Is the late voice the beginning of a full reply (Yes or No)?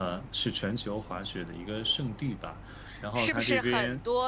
Yes